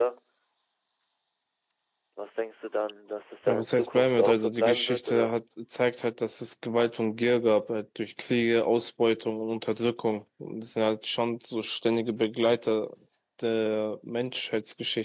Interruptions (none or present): present